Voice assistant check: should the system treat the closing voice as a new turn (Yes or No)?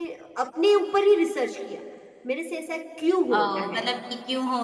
Yes